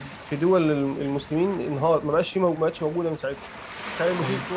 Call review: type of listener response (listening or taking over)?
listening